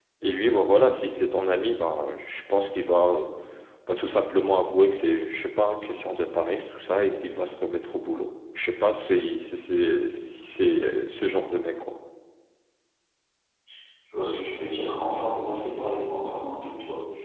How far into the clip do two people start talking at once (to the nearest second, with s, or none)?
none